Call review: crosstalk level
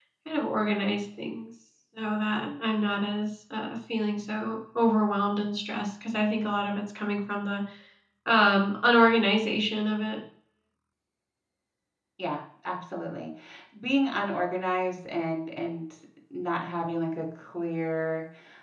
none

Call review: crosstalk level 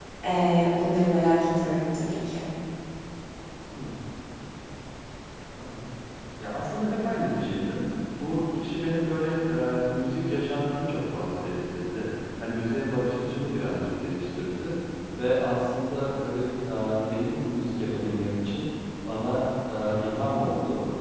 none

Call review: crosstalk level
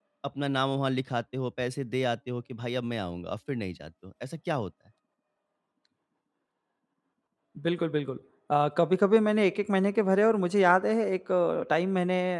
none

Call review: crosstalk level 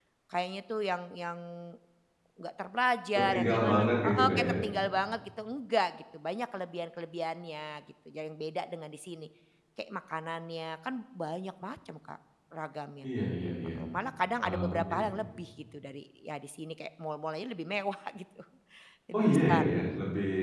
present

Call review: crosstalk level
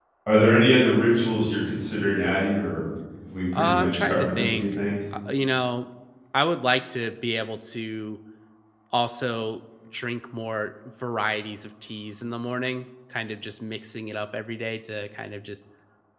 present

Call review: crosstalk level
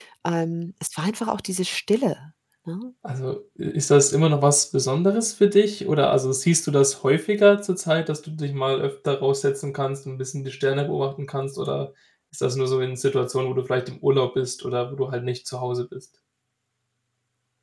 none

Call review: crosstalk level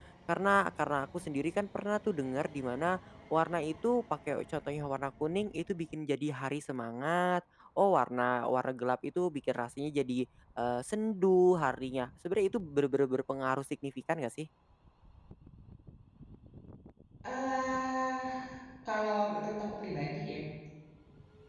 none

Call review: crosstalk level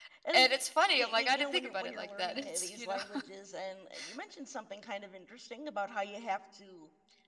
present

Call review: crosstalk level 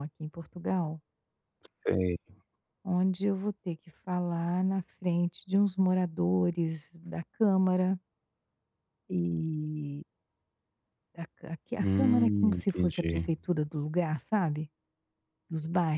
present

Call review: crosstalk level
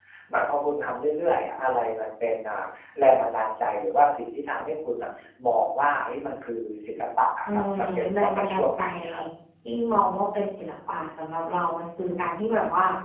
present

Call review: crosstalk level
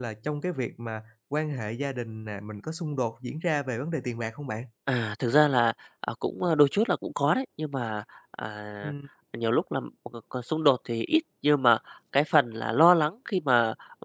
none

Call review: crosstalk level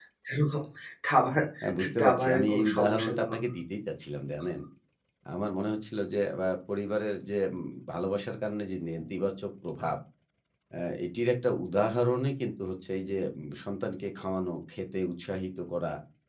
present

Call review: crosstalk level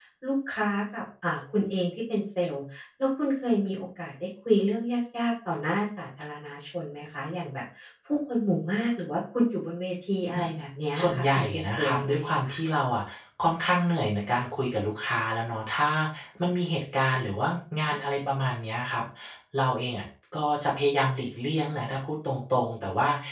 present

